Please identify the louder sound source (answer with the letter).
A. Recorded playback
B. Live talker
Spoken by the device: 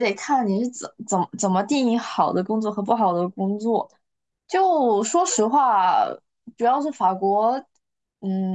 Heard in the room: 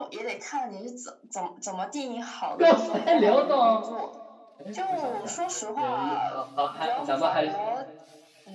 B